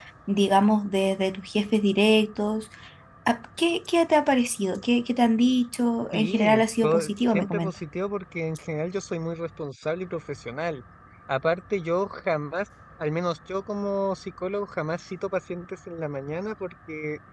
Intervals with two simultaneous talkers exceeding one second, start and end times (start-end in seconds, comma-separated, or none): 6.1-7.7